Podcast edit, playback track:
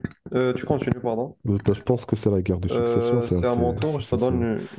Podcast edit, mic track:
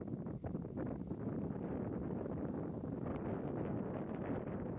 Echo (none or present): none